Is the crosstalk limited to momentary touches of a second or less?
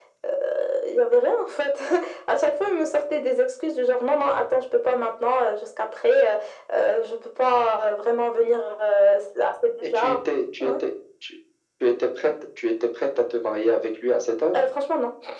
Yes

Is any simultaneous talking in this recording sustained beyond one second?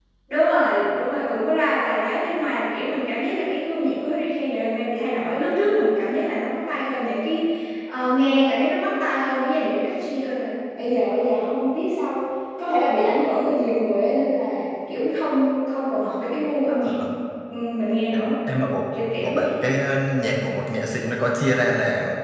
No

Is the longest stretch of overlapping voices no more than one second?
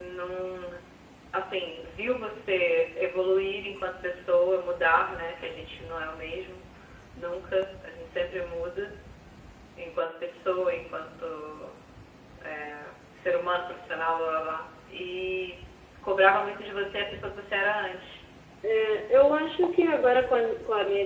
Yes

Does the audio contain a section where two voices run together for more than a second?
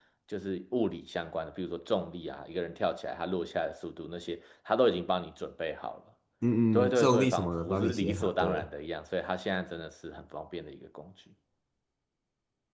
Yes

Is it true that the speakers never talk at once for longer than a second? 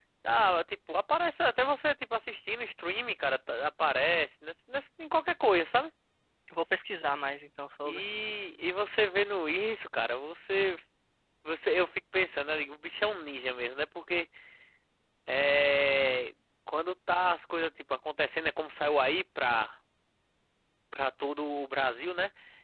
Yes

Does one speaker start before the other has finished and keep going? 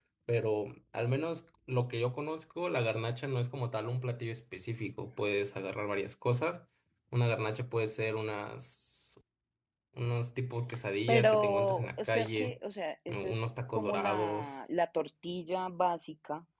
Yes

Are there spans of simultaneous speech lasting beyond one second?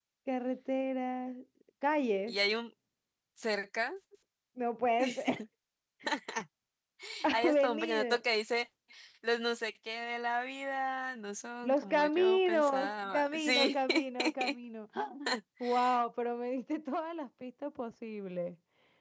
Yes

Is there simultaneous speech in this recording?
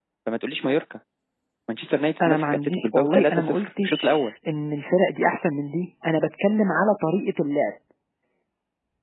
Yes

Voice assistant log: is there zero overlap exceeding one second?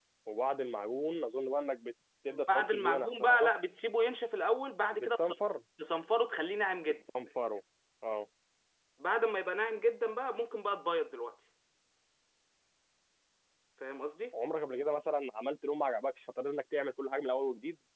No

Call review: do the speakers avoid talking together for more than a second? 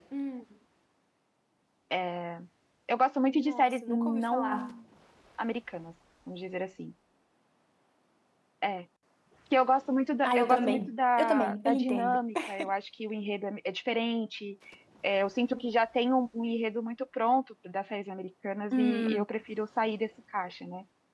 No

